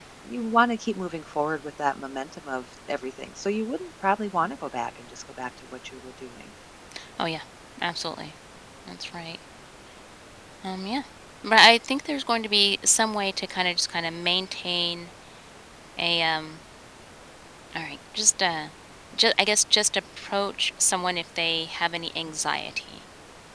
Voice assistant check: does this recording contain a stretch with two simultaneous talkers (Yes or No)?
No